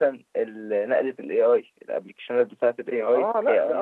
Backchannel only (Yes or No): No